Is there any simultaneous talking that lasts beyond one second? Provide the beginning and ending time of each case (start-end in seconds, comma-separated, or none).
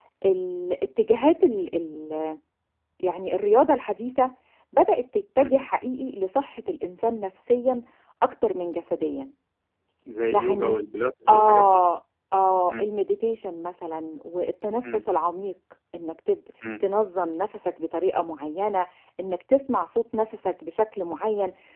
none